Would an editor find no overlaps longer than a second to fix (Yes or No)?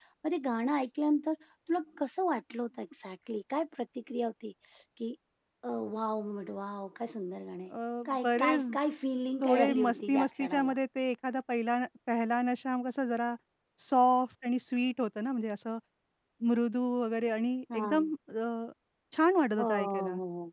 No